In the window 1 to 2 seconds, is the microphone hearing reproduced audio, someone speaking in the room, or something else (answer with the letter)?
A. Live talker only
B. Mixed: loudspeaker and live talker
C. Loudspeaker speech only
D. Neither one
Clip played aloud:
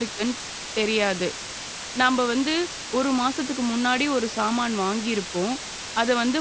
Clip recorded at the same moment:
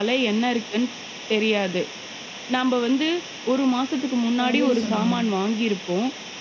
C